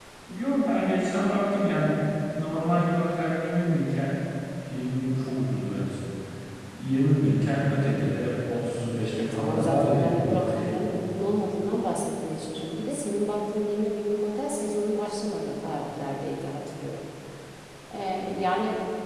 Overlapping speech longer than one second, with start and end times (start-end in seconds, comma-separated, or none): 9.3-10.7